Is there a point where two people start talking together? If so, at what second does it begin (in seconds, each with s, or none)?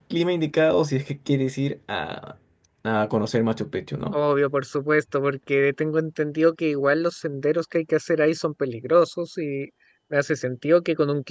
none